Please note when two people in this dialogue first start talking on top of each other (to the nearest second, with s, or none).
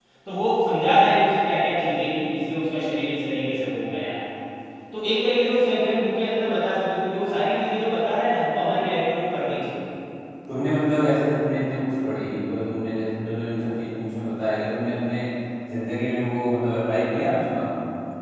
none